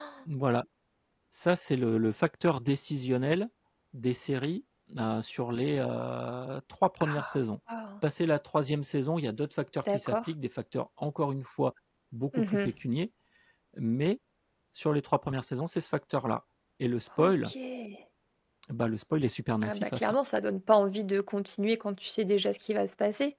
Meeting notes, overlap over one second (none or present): none